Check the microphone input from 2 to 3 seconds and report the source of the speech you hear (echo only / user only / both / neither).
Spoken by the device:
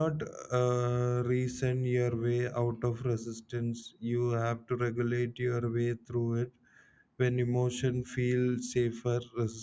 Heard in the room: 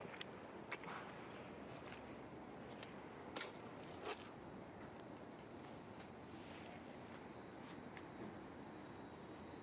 neither